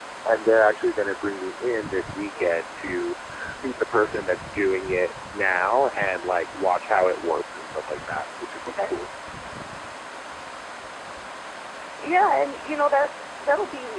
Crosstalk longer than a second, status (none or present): none